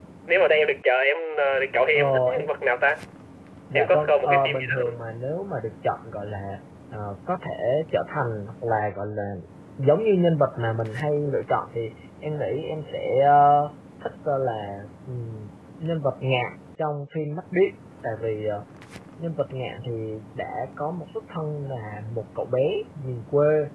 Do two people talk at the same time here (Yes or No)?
Yes